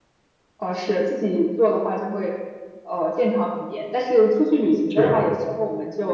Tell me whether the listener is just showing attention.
Yes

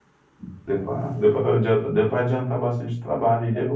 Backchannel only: Yes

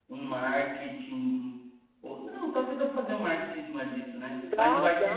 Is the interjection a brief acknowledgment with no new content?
Yes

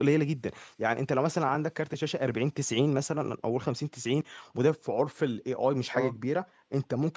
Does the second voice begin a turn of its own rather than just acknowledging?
No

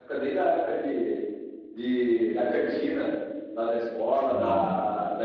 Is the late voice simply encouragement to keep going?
Yes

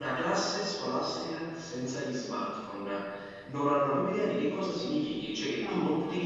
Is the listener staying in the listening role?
Yes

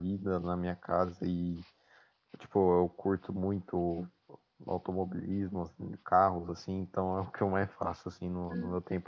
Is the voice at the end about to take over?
Yes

